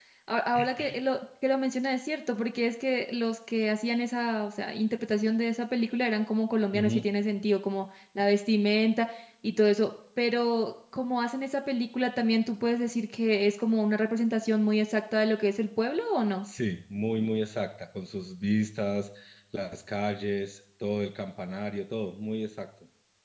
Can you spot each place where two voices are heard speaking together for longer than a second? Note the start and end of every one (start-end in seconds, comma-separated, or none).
none